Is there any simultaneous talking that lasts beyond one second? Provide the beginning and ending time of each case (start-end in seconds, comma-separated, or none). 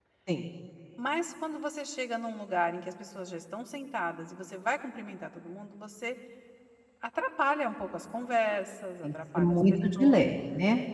9.0-10.3